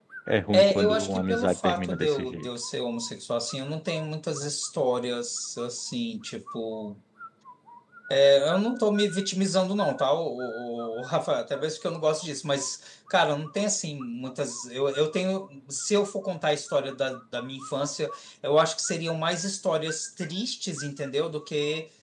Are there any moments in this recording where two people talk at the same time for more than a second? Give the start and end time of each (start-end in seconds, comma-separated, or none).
0.5-2.5